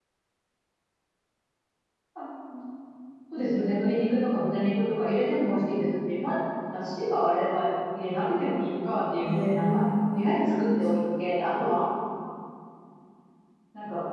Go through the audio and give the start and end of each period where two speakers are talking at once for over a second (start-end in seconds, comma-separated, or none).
9.2-10.6